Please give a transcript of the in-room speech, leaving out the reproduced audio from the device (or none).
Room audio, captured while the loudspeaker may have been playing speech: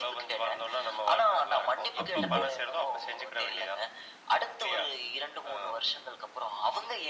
அப்படினு.